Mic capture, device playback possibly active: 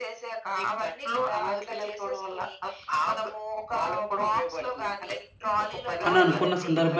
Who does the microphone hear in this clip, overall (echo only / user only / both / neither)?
both